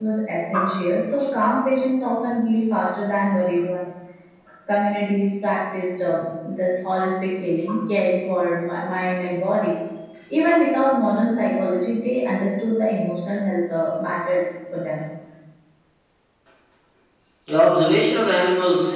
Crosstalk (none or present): none